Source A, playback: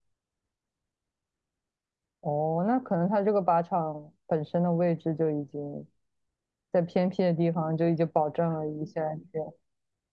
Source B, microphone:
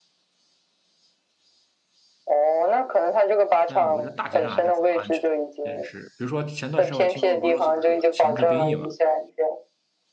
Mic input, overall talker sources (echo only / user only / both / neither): both